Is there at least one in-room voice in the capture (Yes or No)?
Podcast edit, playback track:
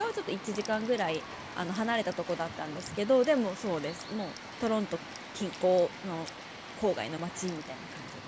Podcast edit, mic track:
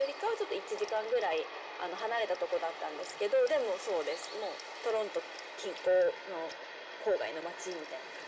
No